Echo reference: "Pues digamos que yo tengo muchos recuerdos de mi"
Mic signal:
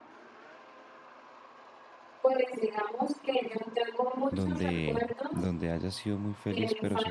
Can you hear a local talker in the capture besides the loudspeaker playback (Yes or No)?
Yes